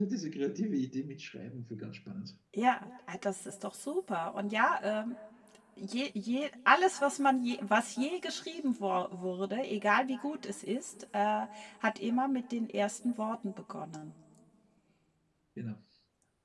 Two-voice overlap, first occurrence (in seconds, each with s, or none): none